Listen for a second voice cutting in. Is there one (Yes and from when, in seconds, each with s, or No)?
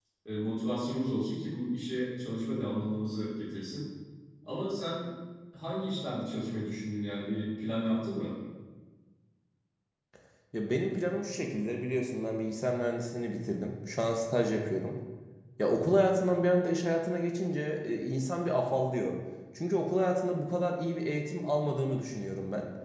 No